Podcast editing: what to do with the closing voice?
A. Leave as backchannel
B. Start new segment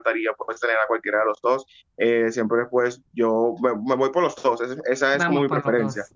B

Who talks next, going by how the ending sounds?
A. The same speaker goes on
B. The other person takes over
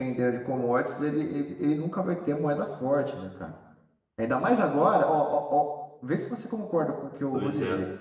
A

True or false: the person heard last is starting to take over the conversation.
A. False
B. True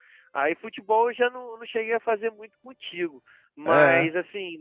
A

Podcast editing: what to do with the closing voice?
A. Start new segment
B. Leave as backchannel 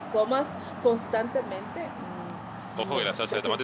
A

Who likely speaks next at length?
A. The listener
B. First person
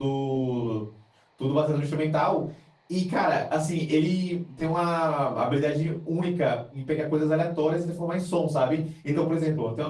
B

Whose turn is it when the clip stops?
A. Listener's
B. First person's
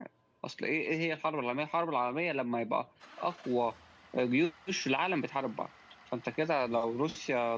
B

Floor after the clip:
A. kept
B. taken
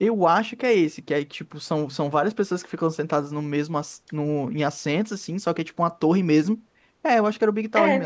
B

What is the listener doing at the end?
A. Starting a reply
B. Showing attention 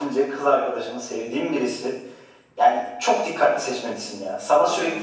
B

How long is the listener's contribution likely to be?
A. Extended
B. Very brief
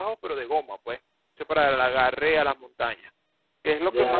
B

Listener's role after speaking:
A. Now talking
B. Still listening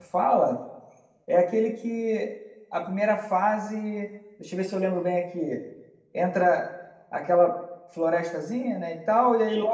B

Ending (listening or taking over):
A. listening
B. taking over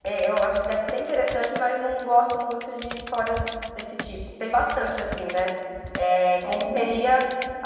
A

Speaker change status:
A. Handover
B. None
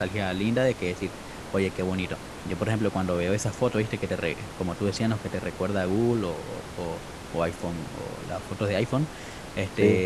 B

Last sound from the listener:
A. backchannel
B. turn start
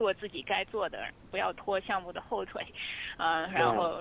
A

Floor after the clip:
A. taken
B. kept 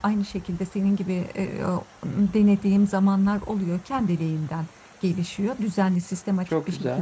B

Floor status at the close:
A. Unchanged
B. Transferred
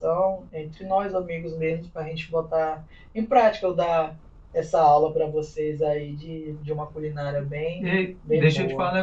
B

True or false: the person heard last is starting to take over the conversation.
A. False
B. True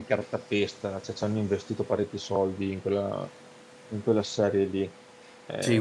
B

